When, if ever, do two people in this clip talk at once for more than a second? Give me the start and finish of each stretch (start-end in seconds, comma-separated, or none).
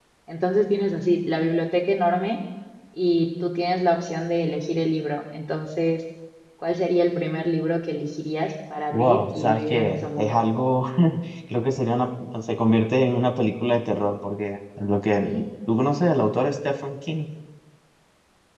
8.9-10.4